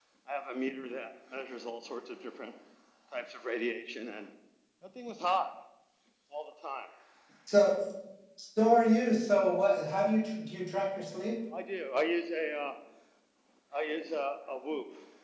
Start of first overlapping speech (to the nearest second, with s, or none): none